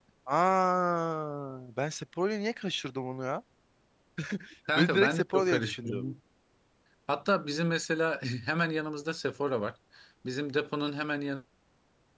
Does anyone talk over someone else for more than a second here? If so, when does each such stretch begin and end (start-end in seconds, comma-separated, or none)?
4.8-6.0